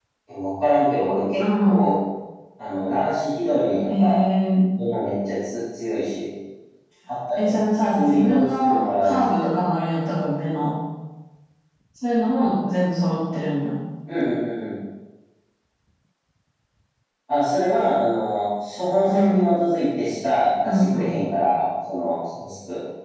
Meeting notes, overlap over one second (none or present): present